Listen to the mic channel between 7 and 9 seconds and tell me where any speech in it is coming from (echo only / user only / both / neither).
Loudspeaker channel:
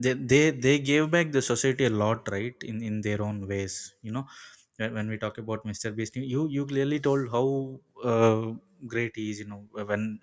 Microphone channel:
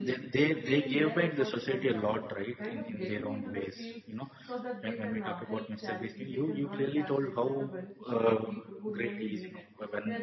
both